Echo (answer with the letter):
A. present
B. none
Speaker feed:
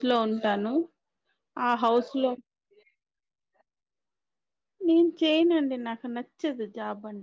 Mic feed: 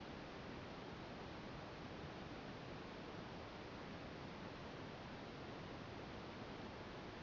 B